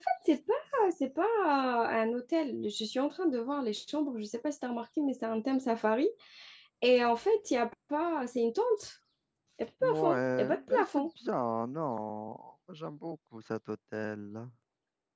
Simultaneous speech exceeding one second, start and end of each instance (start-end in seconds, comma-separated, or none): 9.8-11.1